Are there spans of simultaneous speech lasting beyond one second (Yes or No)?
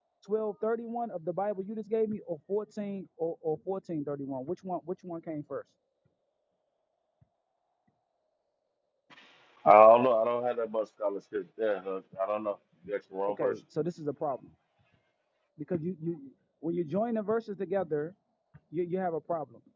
No